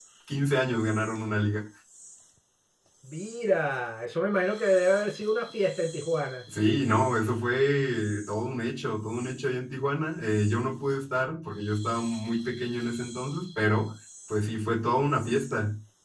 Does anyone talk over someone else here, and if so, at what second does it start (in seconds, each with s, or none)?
none